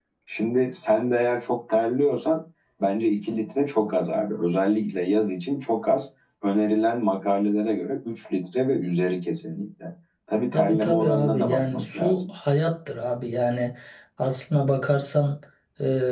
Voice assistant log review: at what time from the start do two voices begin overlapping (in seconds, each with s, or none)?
10.5 s